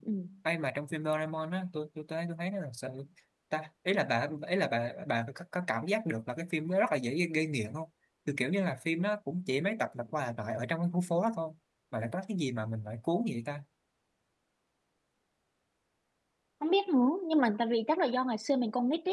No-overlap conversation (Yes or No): Yes